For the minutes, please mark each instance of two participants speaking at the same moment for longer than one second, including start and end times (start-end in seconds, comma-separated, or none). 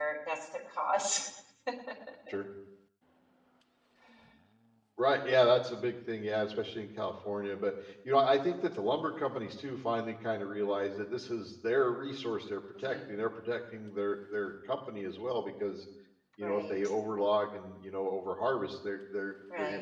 none